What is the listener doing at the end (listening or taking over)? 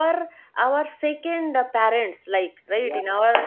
listening